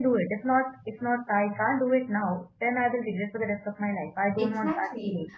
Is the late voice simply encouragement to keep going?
No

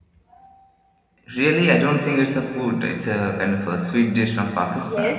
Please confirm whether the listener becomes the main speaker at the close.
Yes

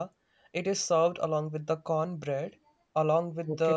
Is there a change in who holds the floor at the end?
No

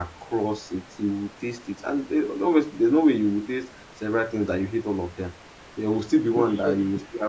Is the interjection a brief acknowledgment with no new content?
Yes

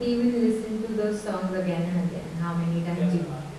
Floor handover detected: Yes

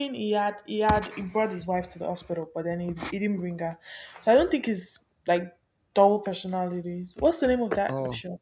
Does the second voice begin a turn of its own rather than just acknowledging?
No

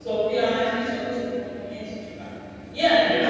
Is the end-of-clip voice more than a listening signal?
No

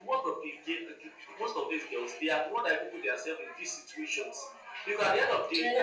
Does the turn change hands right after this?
No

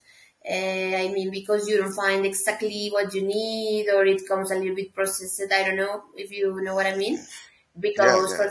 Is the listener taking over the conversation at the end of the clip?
No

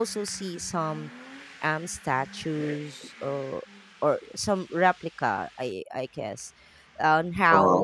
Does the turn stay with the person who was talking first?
Yes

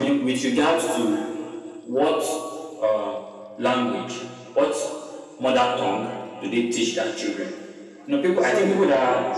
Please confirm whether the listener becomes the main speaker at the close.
Yes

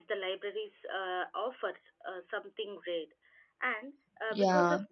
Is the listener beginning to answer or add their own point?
No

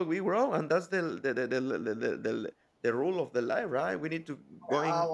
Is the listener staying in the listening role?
Yes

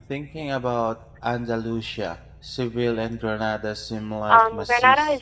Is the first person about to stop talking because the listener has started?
Yes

